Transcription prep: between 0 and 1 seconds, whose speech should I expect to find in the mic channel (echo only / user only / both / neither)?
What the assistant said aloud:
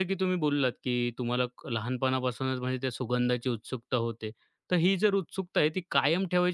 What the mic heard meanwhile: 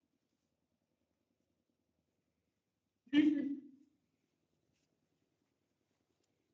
neither